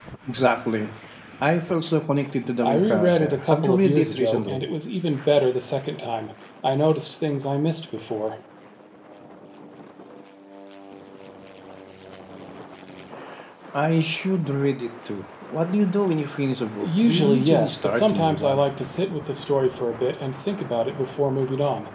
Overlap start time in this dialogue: 2.6 s

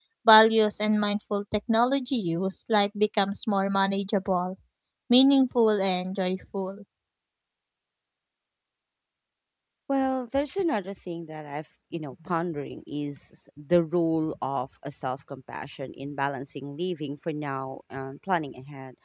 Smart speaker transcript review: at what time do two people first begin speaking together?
none

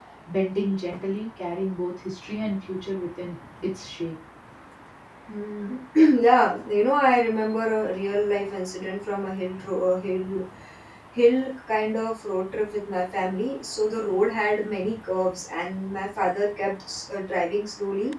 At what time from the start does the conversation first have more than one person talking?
none

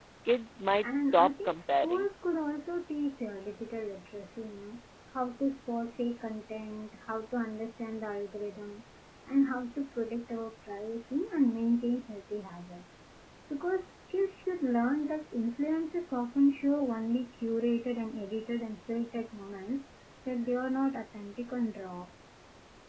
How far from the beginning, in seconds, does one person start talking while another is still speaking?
0.8 s

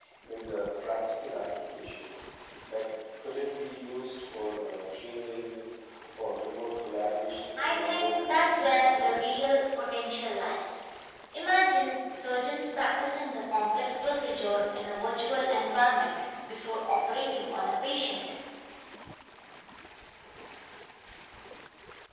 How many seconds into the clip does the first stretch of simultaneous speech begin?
7.6 s

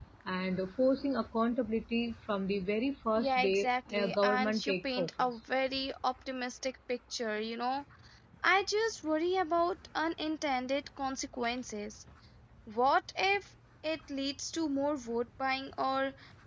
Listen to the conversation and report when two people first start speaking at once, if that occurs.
3.2 s

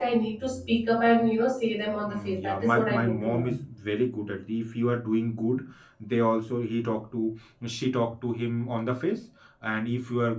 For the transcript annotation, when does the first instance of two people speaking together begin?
2.0 s

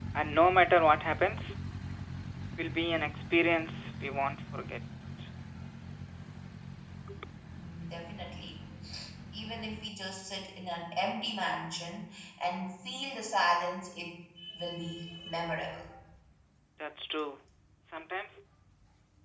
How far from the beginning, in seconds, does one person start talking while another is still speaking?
none

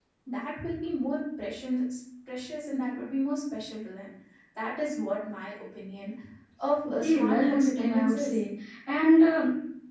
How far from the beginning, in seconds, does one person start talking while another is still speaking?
7.0 s

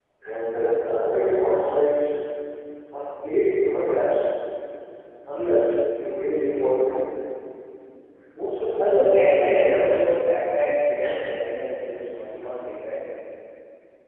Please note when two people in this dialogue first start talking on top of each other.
8.8 s

